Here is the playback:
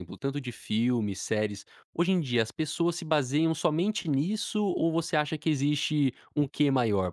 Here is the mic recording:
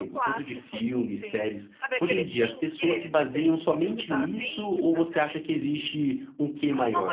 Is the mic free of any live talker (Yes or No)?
No